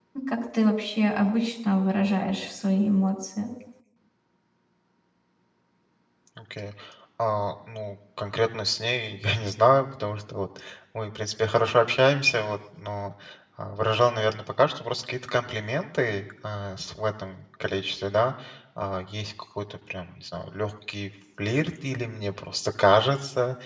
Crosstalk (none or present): none